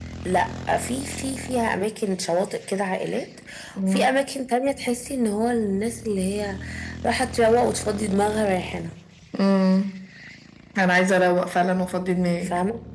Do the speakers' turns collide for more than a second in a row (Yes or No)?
No